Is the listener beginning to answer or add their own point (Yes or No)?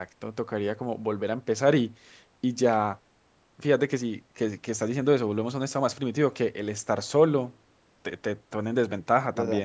Yes